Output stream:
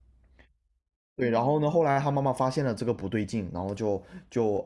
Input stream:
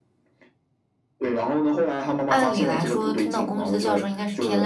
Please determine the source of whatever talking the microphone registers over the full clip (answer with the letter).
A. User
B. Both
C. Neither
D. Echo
B